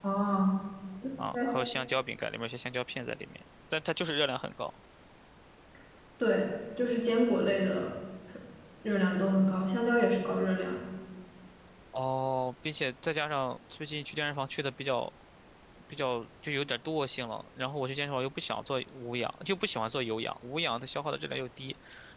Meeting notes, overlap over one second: none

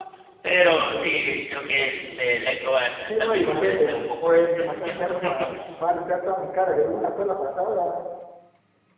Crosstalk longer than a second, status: present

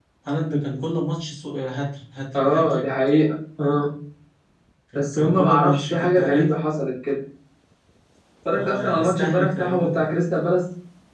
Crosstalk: present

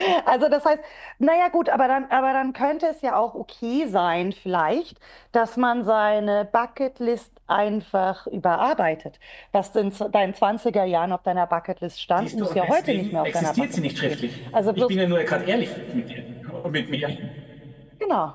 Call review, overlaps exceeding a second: present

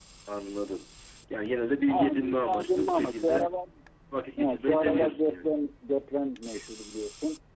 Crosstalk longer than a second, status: present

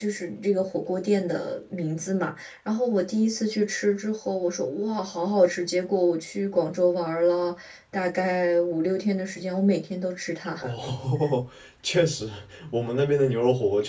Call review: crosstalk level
none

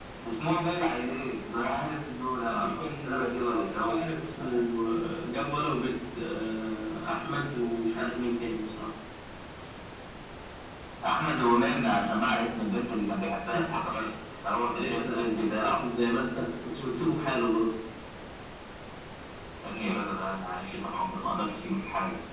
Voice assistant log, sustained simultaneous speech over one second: present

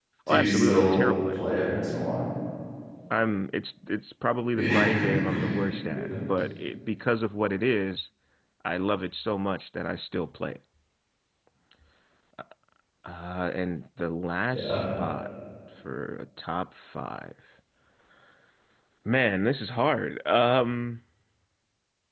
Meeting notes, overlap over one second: present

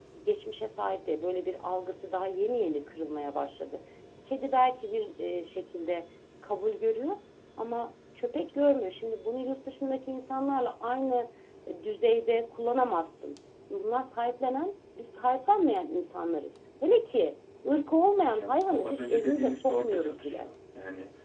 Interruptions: present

